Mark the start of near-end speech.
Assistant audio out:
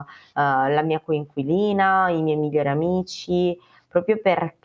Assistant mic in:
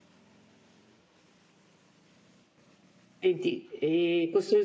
3.2 s

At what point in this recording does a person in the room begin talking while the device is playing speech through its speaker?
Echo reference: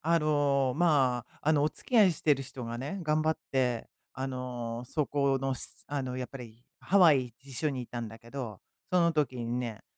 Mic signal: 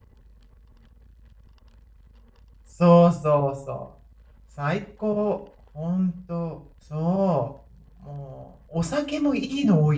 2.8 s

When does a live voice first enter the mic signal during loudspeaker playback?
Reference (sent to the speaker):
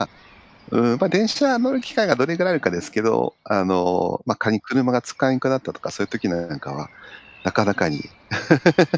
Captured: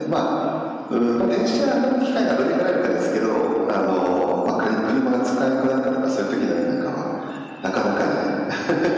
none

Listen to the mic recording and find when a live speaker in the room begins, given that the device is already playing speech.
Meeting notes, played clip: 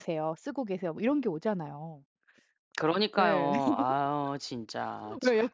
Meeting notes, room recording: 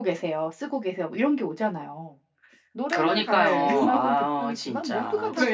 2.7 s

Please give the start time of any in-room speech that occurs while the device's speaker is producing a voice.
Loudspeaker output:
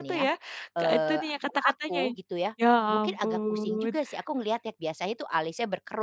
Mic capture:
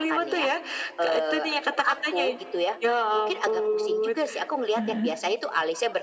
4.8 s

